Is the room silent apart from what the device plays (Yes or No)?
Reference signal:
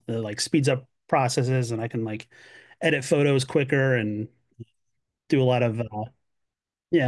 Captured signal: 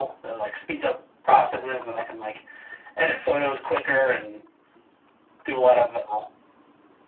Yes